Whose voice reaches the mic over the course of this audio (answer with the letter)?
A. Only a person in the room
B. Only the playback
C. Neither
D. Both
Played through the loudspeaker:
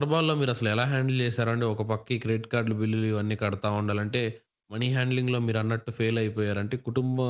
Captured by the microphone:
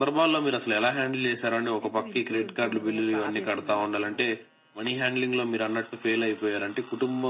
D